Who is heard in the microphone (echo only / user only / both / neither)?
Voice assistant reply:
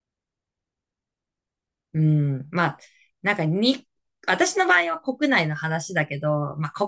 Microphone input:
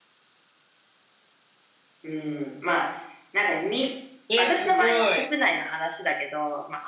both